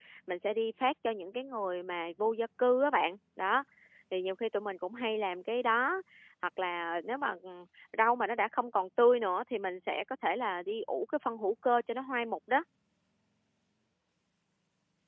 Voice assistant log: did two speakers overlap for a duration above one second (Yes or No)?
No